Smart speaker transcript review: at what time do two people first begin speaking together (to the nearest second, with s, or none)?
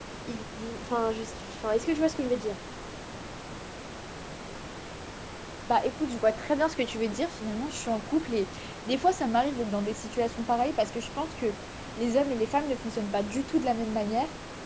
none